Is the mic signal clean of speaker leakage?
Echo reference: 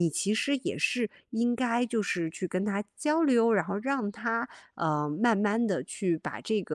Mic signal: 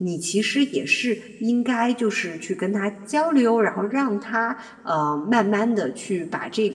No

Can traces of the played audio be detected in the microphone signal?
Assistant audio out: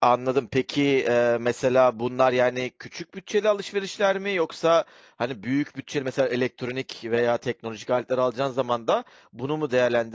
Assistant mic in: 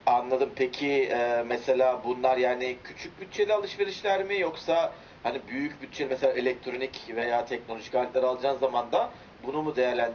Yes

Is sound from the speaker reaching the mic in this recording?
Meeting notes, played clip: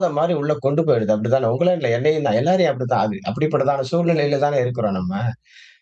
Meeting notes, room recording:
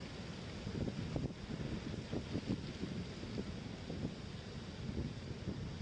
No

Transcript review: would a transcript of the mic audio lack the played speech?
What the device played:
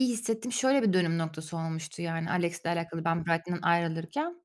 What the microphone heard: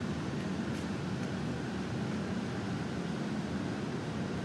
Yes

